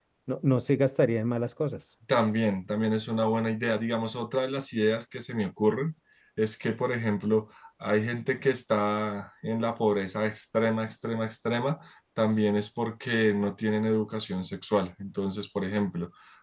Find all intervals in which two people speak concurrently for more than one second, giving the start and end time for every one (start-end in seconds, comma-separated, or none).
none